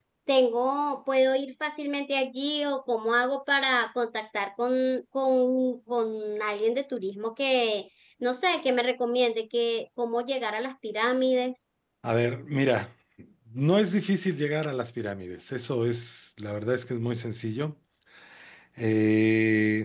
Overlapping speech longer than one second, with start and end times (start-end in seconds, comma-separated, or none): none